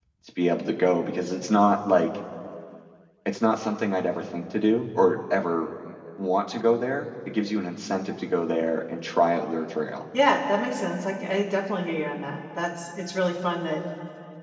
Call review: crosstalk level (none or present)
none